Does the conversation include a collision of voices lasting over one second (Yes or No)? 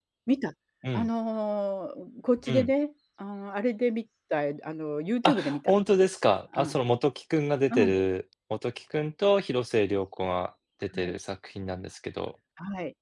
No